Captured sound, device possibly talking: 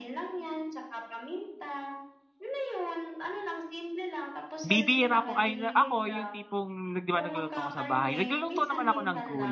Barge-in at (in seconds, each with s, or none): 4.7 s